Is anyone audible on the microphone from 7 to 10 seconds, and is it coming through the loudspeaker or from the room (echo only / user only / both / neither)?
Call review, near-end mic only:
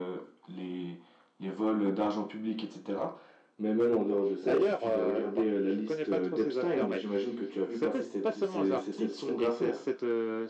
echo only